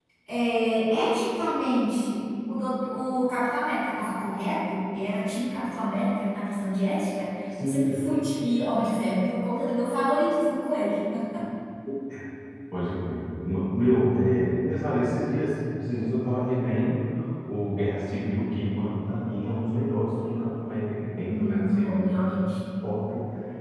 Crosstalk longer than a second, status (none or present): present